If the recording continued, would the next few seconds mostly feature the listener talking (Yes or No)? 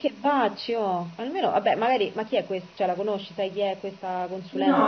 Yes